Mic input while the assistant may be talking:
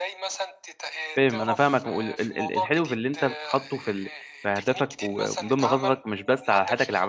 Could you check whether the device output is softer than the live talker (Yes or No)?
Yes